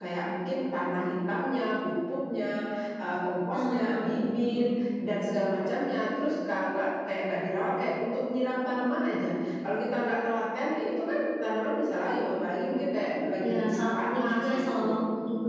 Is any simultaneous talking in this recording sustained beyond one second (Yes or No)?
Yes